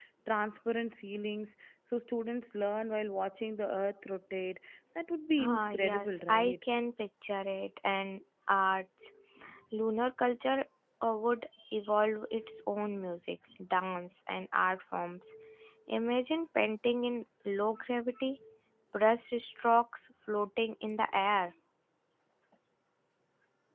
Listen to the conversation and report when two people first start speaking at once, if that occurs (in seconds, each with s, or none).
5.4 s